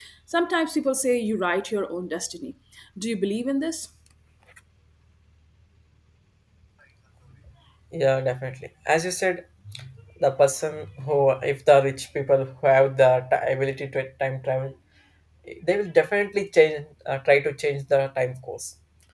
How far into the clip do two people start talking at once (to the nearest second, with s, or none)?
none